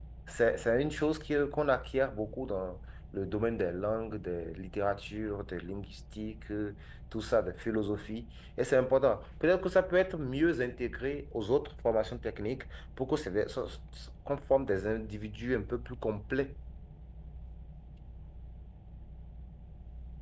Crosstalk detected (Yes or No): No